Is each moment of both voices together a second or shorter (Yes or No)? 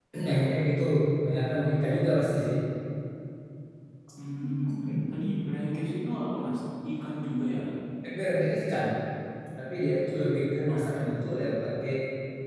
Yes